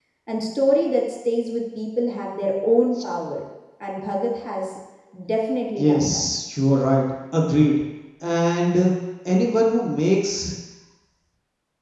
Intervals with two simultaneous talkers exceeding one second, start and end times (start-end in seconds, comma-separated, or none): none